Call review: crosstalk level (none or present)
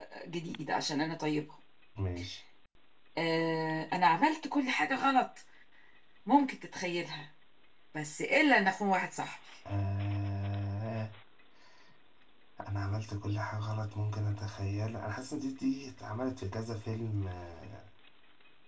none